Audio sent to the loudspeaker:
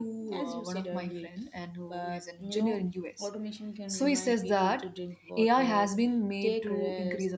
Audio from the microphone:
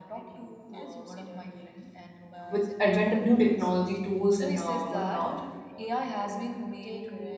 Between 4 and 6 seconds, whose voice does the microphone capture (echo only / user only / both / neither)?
both